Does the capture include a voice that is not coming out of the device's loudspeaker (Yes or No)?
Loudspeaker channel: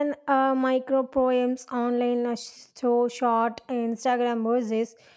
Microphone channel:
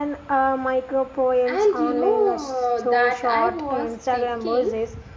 Yes